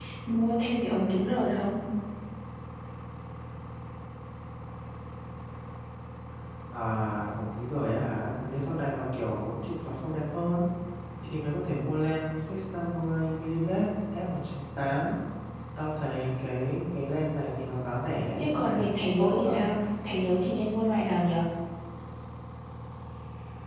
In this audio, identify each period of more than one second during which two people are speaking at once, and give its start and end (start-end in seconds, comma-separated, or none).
18.4-19.6